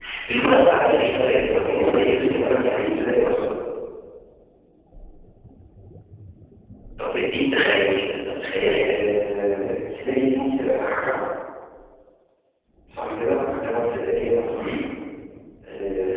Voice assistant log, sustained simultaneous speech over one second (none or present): present